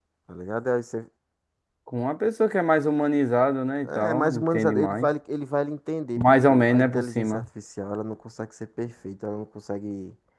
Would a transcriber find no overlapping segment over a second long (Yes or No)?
No